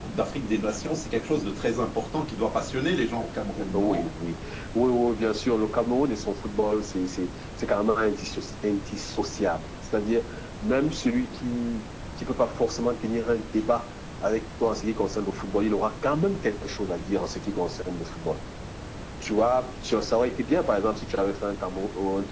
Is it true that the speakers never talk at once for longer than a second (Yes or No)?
Yes